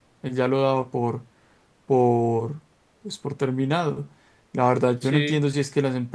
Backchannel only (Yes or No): Yes